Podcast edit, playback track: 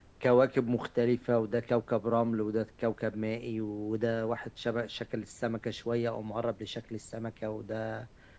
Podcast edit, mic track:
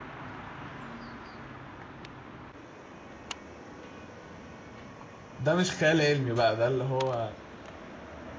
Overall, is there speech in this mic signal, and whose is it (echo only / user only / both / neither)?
user only